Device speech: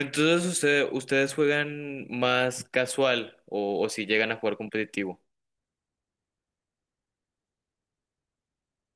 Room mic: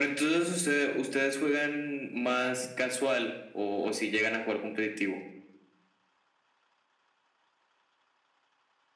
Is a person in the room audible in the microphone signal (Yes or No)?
No